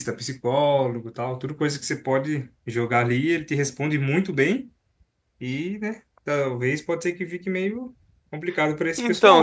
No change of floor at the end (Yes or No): No